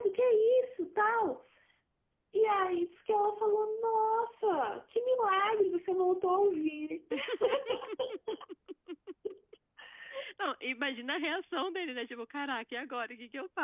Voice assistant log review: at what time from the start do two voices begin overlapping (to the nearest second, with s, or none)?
none